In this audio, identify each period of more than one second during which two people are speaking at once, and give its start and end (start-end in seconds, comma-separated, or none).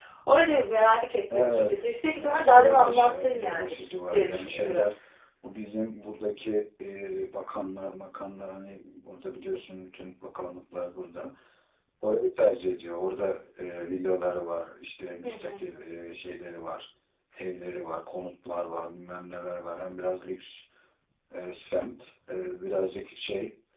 2.2-4.8